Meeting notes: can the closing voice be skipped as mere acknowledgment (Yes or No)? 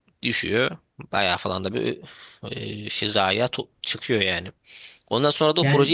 Yes